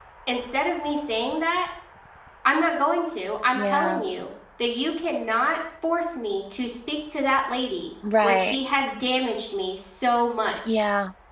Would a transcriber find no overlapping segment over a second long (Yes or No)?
Yes